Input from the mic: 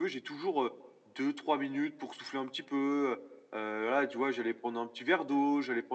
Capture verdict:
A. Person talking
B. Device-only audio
A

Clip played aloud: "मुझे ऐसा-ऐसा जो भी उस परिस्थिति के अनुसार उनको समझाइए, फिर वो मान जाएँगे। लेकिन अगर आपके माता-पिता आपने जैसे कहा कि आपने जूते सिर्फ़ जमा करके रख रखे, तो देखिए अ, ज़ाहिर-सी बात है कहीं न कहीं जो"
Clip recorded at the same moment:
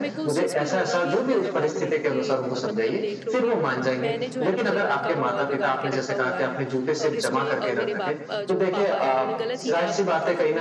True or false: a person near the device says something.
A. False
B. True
B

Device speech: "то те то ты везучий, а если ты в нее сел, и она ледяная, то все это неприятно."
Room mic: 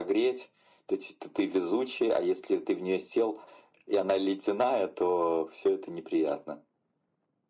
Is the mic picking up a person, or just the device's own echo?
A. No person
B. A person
A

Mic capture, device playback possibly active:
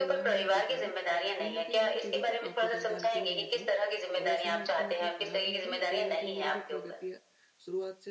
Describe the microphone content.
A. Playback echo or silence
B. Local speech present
B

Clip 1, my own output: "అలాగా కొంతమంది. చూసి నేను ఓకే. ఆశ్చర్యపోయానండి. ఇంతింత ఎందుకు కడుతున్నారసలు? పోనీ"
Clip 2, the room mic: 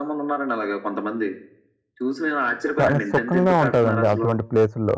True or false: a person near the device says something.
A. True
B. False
A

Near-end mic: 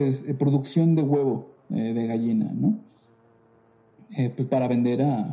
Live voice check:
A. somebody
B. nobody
B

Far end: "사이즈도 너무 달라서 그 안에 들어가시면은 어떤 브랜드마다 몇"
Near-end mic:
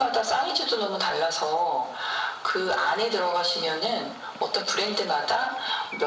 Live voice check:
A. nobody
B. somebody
A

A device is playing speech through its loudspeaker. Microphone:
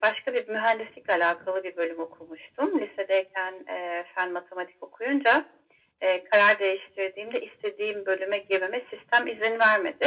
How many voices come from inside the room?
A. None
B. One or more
A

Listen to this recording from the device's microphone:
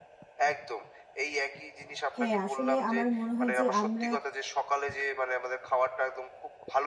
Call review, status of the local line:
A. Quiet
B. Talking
B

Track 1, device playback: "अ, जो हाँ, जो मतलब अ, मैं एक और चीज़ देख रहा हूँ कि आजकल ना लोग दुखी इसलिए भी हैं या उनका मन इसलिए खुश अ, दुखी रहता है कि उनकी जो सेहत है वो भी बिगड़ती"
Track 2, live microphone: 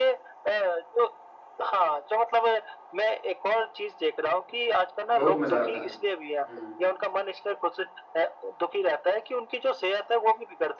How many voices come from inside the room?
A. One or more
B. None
A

